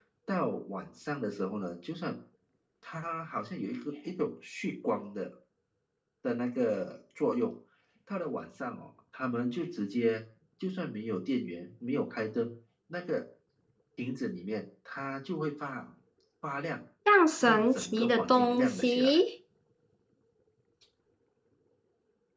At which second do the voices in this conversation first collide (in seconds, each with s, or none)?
17.4 s